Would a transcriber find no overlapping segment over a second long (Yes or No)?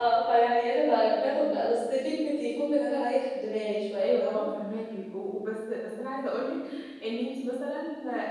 Yes